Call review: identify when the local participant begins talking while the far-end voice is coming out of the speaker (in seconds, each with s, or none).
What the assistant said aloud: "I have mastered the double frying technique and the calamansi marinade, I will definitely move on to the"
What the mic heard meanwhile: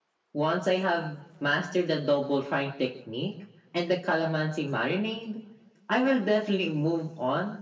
none